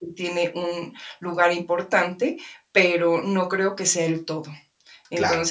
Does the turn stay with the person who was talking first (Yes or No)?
Yes